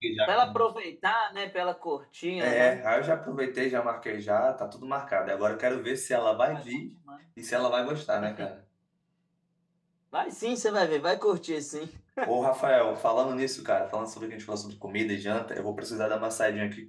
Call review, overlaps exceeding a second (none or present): none